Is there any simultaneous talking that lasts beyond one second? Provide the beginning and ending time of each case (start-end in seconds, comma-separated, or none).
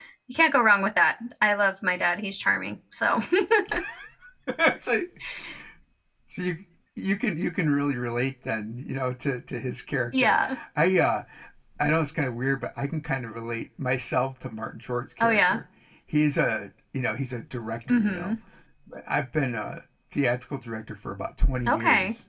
none